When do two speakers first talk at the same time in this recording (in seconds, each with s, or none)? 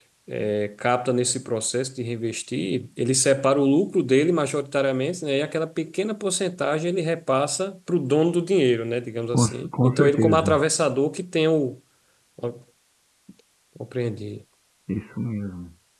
9.3 s